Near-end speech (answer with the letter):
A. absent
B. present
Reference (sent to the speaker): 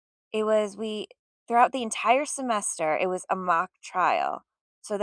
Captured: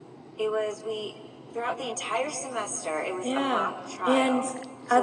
B